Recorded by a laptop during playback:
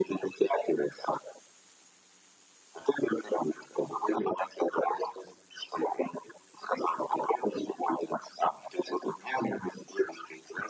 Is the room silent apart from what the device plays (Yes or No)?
Yes